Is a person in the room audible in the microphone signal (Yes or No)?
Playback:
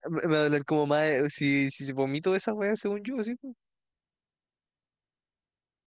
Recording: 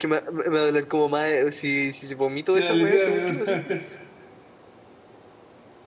Yes